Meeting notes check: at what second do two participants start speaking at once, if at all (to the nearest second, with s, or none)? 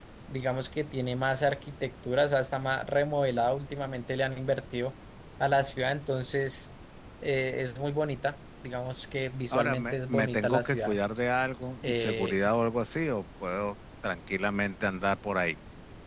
10 s